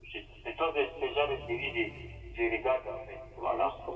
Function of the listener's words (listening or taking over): taking over